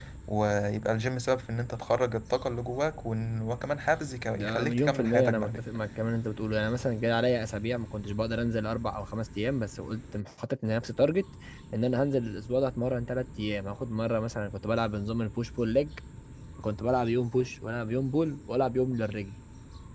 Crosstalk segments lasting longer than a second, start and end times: 4.3-5.7

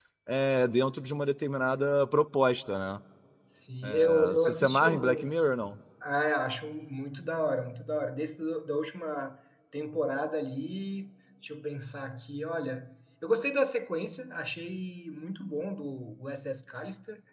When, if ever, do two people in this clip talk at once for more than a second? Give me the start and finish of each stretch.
3.8-5.4

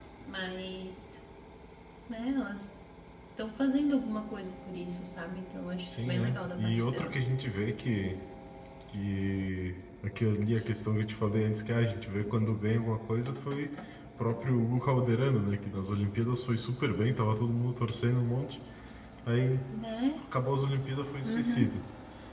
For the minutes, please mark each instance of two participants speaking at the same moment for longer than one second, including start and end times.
5.9-7.3

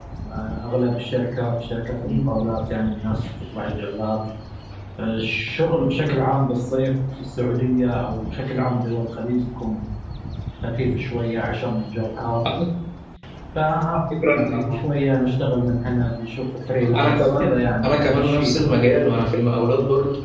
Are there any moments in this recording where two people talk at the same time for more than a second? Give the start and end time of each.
16.8-18.6

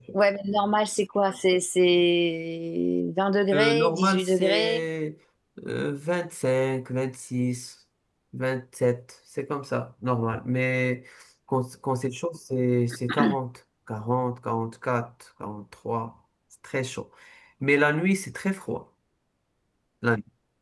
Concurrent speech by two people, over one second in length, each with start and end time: 3.5-4.8

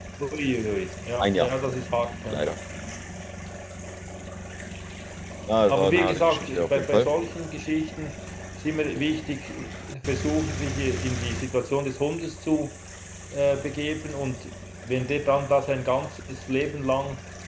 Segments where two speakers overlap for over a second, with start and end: 5.7-7.1

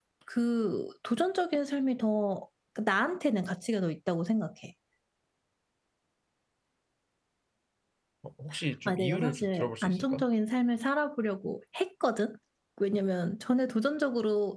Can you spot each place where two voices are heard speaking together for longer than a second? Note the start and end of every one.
8.8-10.2

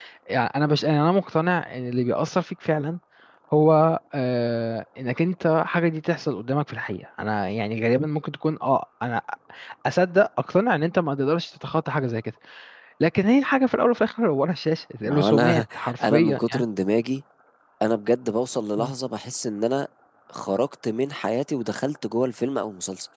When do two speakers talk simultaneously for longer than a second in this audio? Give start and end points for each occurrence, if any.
15.1-16.6

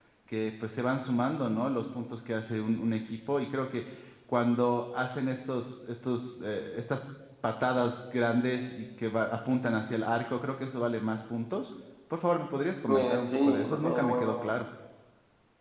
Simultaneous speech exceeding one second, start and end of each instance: 12.9-14.5

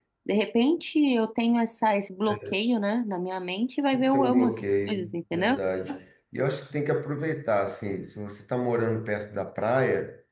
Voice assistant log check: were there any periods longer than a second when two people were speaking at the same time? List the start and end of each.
3.9-5.6

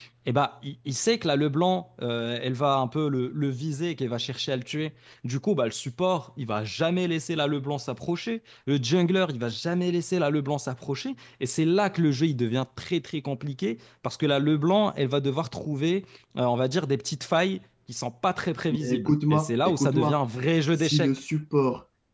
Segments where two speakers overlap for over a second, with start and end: 18.7-20.2

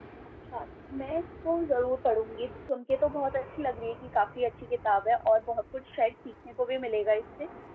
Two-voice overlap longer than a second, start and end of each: none

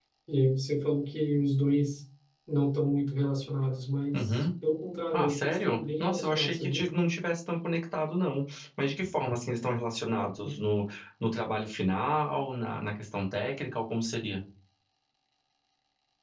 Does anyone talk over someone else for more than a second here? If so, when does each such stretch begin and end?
5.1-6.9

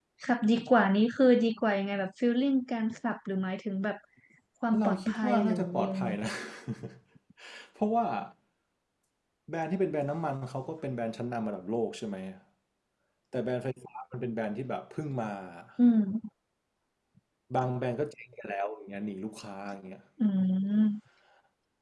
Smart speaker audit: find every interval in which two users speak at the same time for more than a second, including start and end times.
4.8-6.1

